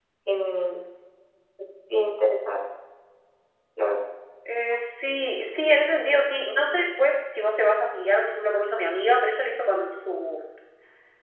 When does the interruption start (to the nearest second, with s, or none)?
none